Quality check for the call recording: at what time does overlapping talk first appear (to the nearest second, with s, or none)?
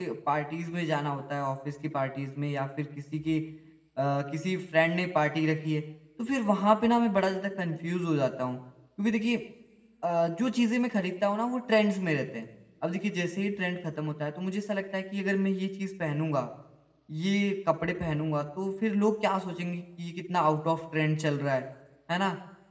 none